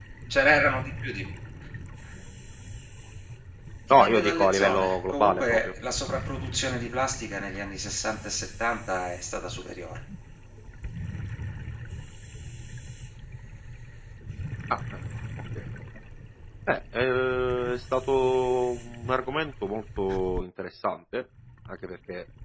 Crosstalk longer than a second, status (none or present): present